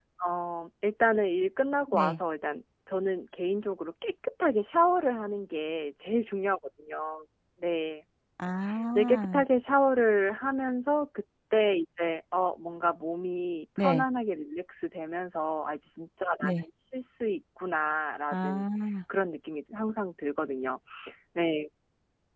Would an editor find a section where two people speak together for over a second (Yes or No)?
No